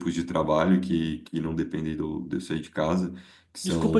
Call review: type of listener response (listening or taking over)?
taking over